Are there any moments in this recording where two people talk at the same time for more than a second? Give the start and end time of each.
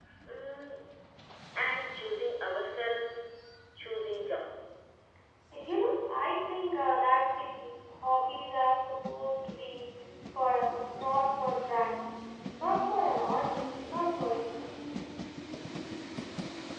none

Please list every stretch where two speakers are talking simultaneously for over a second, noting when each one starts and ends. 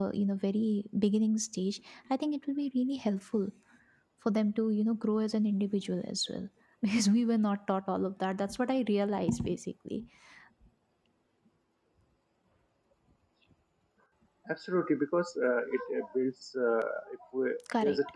none

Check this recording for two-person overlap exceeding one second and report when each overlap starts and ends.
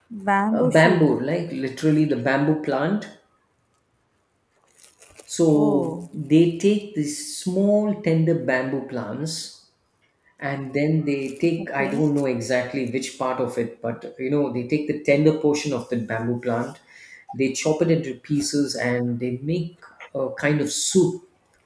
none

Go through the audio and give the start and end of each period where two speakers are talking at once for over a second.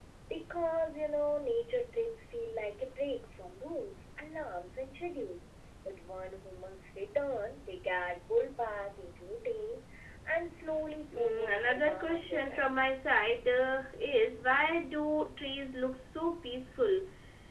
11.1-12.7

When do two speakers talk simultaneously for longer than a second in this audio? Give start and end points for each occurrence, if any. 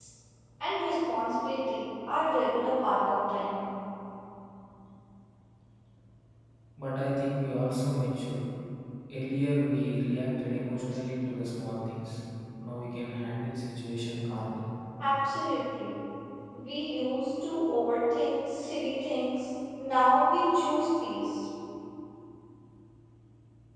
none

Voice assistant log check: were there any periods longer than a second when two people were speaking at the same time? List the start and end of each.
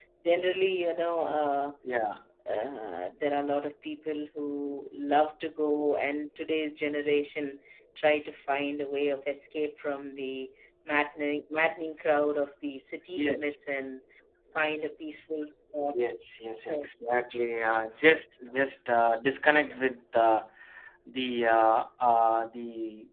none

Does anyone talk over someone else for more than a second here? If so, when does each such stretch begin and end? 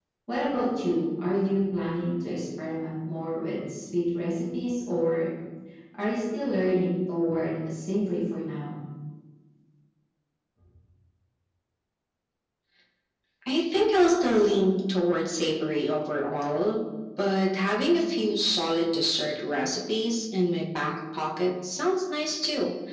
none

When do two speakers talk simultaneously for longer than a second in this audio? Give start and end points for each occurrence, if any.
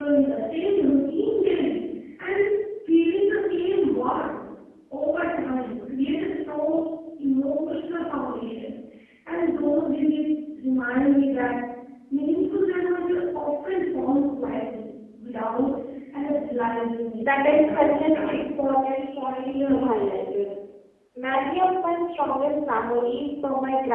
17.2-18.4

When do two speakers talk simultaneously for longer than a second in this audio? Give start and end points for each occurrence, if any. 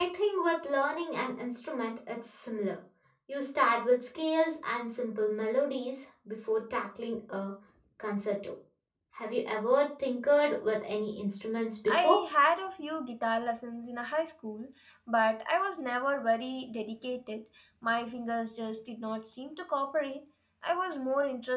none

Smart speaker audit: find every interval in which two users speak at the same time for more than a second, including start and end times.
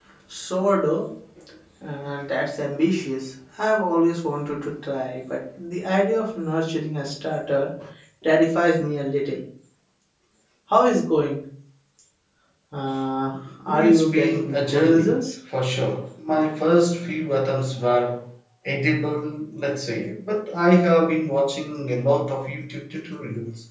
13.7-15.2

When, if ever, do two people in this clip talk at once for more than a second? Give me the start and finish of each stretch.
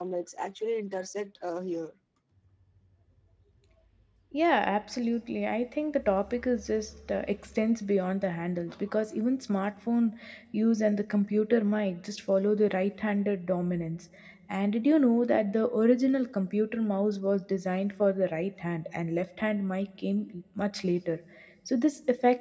none

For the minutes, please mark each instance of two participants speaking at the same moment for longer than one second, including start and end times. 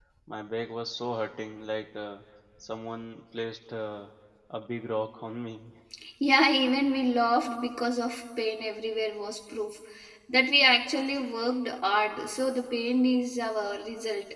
none

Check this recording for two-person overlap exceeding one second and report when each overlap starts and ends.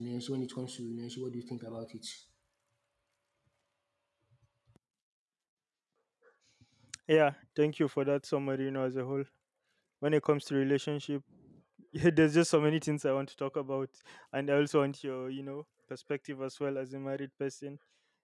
none

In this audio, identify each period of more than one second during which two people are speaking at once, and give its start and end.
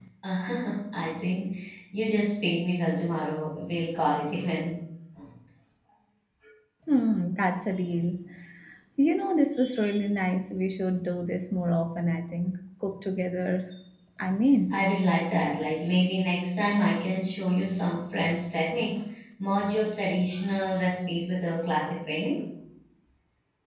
none

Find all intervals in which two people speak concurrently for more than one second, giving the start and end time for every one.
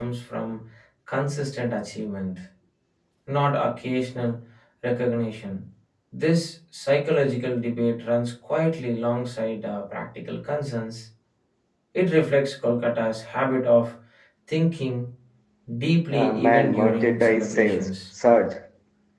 16.2-17.9

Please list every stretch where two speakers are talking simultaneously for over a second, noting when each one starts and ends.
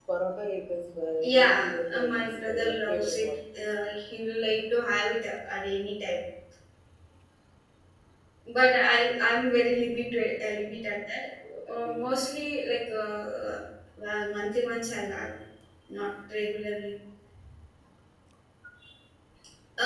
1.2-3.3

